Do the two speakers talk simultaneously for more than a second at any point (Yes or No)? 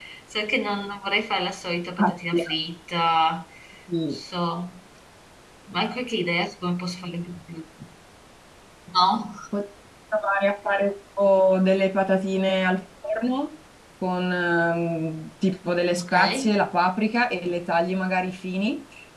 No